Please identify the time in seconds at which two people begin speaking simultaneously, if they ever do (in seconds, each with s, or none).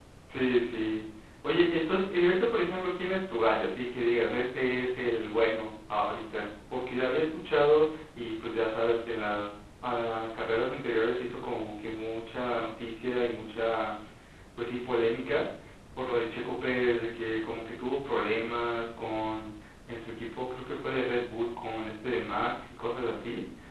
none